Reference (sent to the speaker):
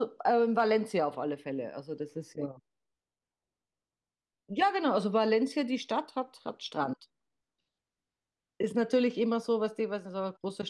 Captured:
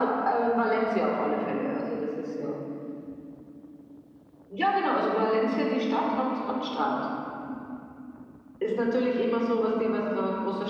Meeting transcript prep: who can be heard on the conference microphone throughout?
echo only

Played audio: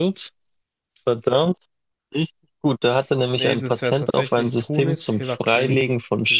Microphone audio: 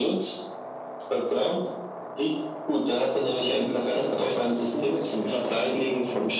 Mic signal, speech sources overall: echo only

